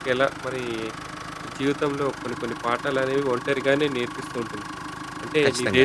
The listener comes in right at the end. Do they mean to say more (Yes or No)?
No